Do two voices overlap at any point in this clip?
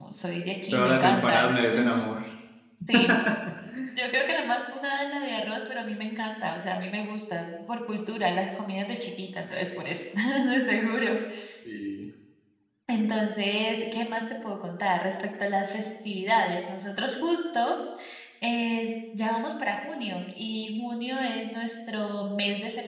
Yes, from 0.7 s

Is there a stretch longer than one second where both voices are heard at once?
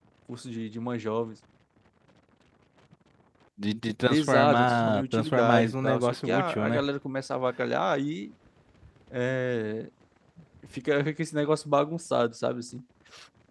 Yes, from 4.1 s

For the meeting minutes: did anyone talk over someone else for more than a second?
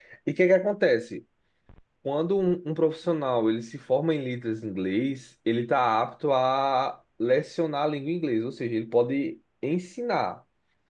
No

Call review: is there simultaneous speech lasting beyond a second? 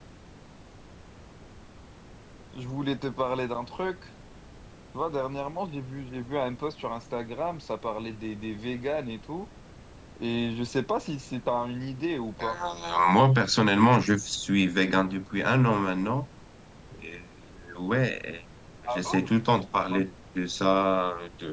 No

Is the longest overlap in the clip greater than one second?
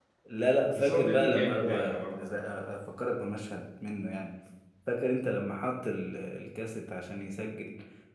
Yes, from 0.7 s

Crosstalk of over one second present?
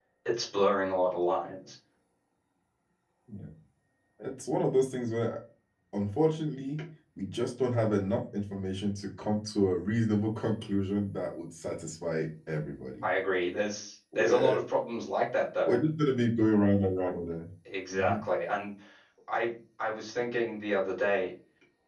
No

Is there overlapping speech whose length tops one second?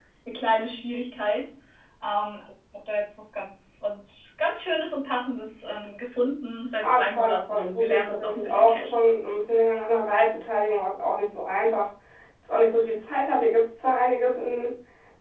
Yes, from 6.8 s

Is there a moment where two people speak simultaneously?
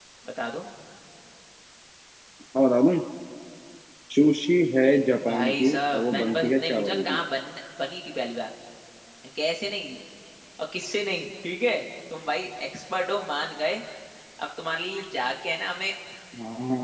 Yes, from 5.2 s

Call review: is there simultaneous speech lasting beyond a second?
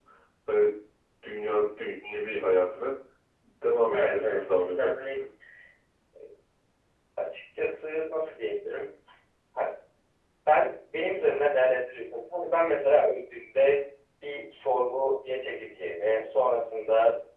Yes, from 3.9 s

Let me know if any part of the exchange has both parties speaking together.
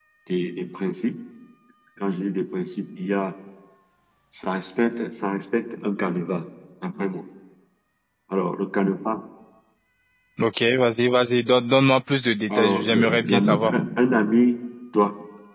Yes, from 12.5 s

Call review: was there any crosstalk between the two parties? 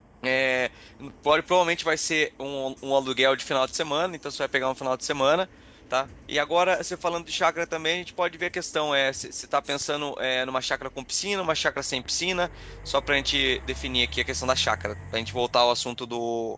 No

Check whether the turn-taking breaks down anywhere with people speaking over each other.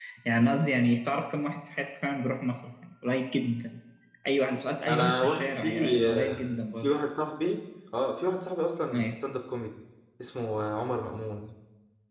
Yes, from 4.9 s

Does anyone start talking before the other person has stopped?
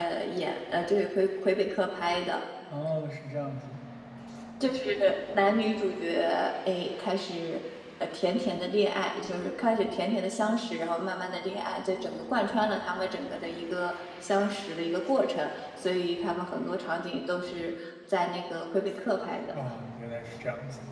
No

